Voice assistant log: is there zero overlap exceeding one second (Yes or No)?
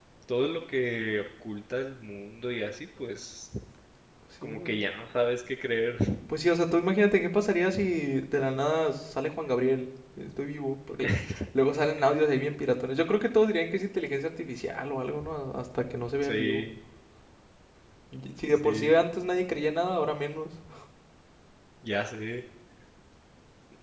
Yes